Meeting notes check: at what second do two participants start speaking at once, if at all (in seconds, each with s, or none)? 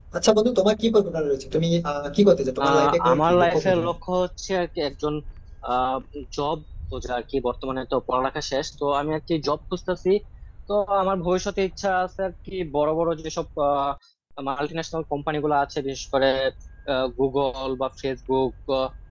2.6 s